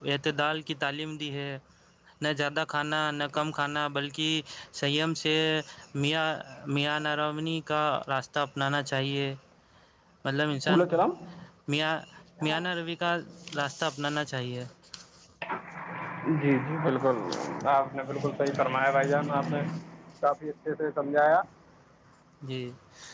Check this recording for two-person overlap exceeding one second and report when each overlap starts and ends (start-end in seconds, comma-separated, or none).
none